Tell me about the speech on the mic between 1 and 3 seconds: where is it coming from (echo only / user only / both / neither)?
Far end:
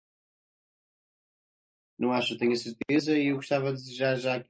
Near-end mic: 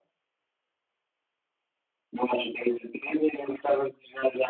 echo only